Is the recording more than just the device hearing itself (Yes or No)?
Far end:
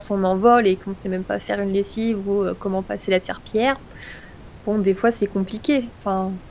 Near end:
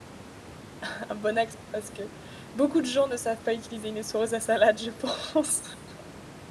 Yes